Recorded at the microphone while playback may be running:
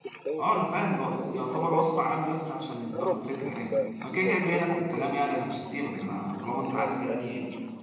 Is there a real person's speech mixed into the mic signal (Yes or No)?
Yes